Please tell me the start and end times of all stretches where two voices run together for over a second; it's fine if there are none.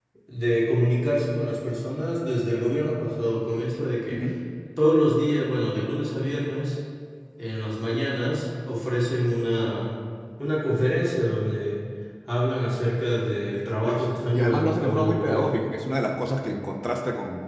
13.8-15.6

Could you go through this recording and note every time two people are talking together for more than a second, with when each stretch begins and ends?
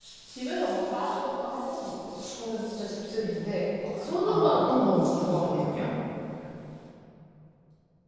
4.3-5.7

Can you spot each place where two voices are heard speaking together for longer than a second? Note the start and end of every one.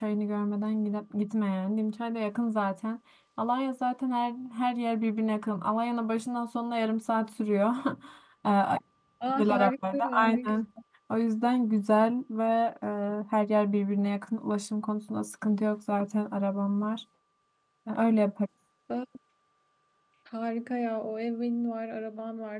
9.3-10.6

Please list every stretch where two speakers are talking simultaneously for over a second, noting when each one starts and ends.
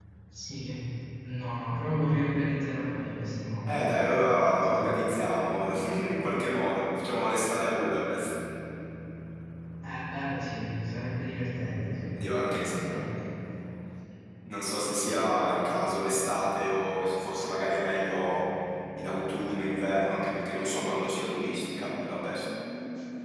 none

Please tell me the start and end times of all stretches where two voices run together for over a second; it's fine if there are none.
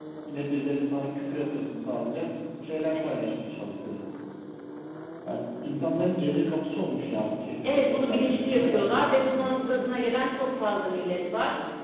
7.6-9.6

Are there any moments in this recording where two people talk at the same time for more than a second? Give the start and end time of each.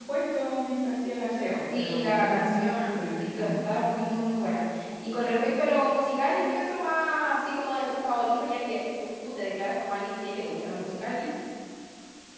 1.7-3.5

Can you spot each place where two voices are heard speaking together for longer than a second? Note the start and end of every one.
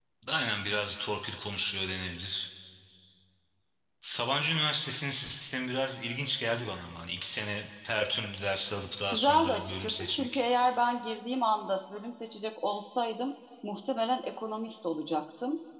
9.1-10.4

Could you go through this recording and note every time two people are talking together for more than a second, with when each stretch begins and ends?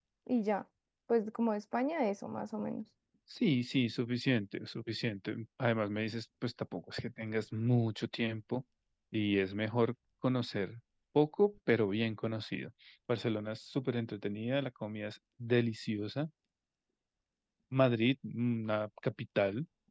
none

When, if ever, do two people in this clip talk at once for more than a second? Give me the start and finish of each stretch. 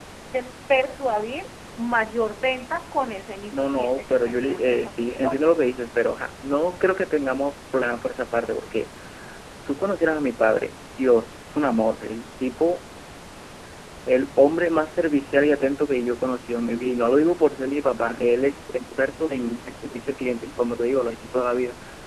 3.5-5.5

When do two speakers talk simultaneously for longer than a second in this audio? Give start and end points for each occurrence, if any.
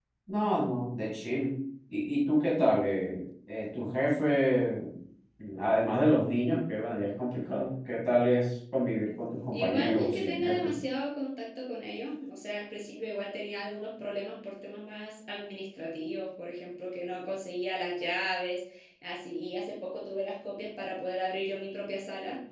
9.5-10.7

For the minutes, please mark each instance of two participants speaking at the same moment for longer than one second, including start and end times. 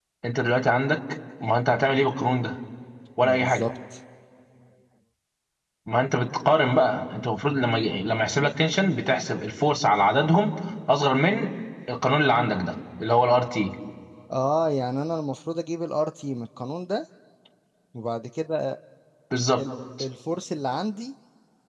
none

